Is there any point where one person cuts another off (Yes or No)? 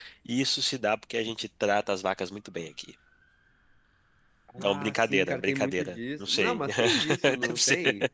Yes